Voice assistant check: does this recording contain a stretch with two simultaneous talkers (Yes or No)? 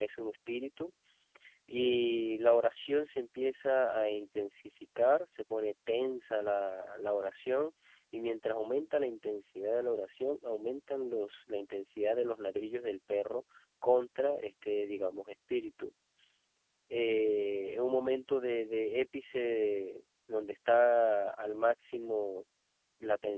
No